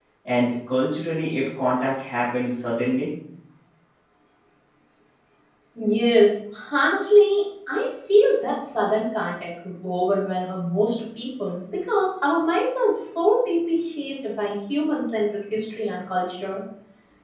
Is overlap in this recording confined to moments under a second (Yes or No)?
Yes